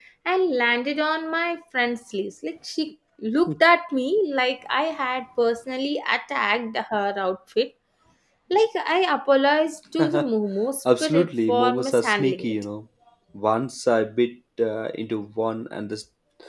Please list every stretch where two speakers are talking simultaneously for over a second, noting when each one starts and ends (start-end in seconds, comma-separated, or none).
11.0-12.5